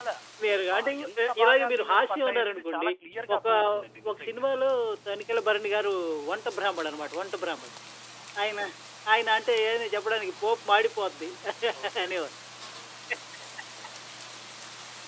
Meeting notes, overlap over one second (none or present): present